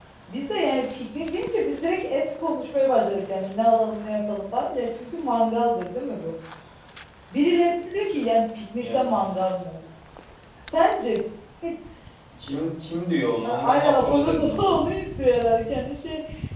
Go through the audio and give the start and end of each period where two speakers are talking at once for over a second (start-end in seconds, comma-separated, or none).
13.4-14.8